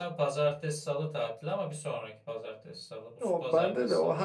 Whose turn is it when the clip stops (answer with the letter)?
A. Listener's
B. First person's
A